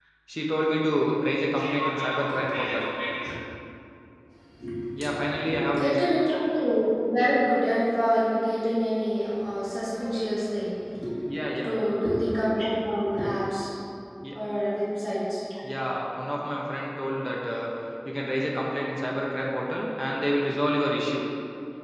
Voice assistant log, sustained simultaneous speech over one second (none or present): present